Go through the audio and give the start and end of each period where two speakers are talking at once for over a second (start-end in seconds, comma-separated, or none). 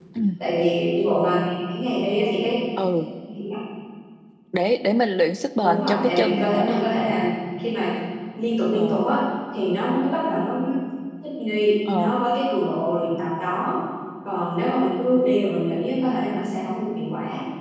5.6-6.8